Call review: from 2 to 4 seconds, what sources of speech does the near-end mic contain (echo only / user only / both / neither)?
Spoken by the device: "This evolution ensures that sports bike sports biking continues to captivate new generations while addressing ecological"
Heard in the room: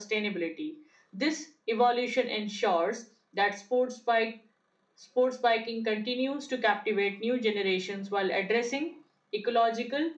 echo only